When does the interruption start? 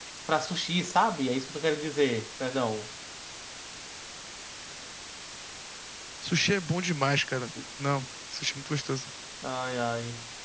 none

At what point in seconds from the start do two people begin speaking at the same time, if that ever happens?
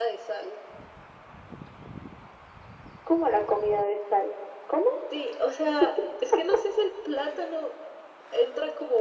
none

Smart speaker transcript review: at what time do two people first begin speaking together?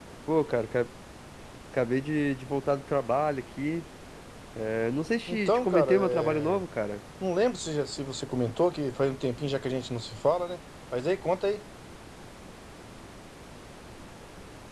5.3 s

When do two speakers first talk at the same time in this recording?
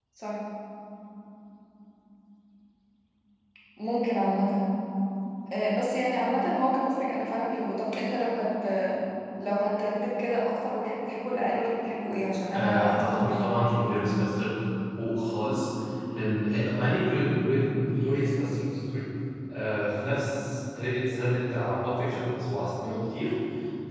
12.5 s

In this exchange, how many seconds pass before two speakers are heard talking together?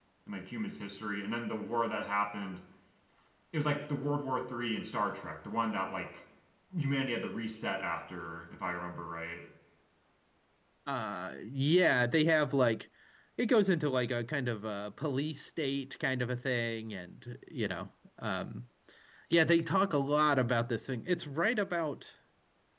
none

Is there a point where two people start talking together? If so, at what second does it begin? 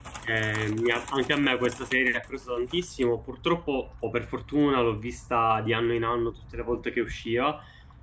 none

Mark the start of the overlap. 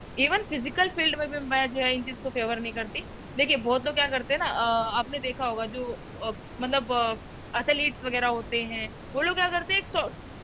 none

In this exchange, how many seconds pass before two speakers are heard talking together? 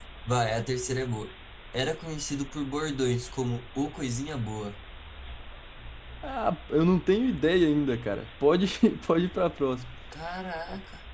none

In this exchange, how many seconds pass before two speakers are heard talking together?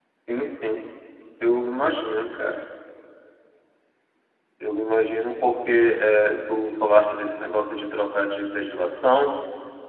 none

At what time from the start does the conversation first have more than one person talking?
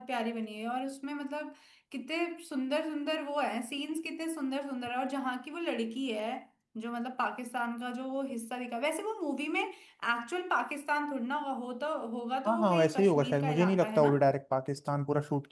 12.4 s

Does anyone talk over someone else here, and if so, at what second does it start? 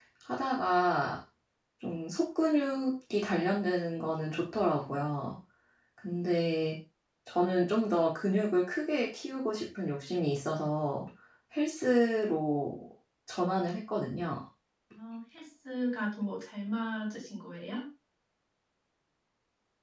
none

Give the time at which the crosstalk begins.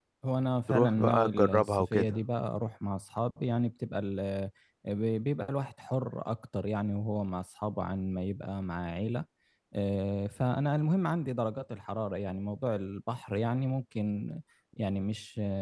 0.7 s

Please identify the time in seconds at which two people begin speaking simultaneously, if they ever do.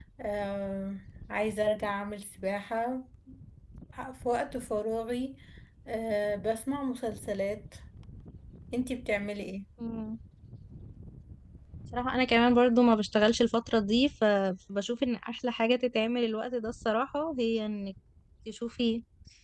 none

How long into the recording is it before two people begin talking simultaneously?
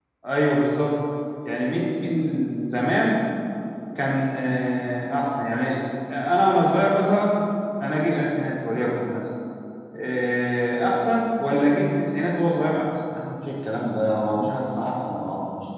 none

